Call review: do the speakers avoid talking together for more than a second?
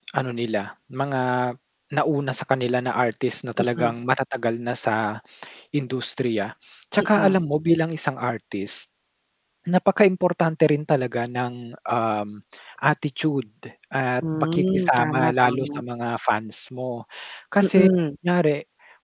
No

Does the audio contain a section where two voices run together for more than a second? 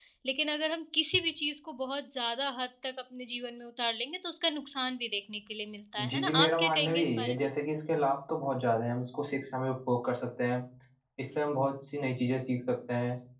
Yes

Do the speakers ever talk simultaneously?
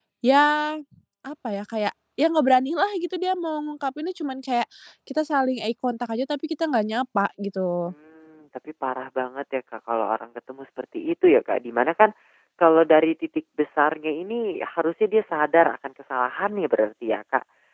No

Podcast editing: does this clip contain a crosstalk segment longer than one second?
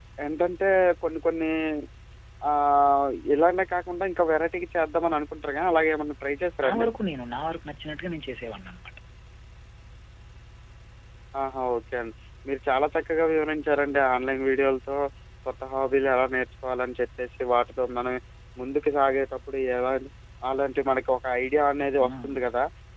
No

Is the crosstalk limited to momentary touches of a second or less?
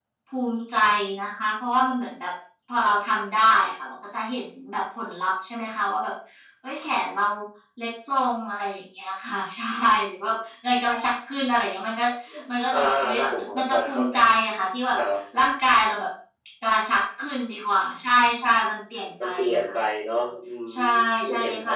No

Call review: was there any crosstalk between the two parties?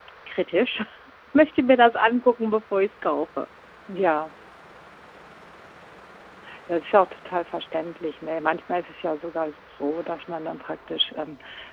No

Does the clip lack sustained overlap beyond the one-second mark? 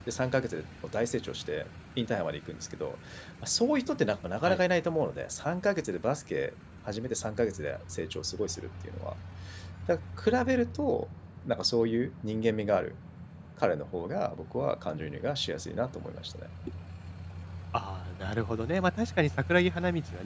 Yes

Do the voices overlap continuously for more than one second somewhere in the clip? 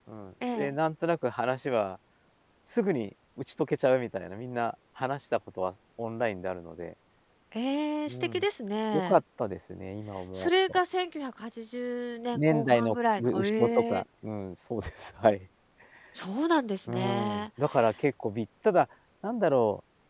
Yes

